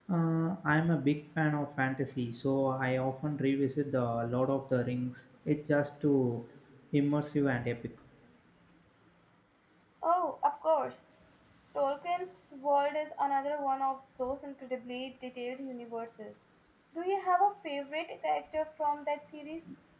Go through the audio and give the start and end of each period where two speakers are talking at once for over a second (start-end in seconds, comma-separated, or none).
none